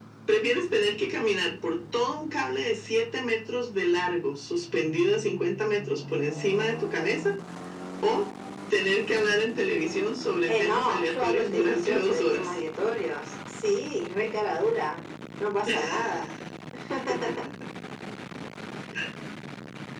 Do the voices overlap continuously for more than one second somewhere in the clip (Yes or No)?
Yes